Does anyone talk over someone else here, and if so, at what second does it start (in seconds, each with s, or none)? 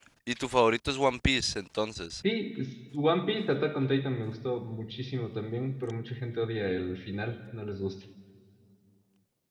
none